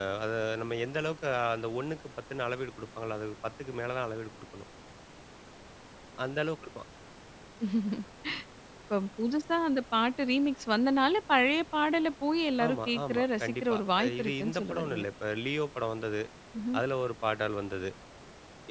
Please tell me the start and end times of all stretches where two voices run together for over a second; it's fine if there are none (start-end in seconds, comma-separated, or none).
12.7-15.0